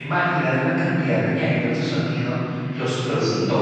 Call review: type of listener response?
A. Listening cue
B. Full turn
A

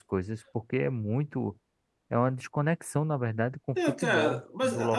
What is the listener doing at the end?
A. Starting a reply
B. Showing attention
A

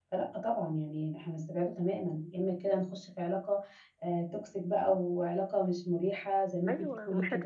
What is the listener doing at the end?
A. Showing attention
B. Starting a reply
B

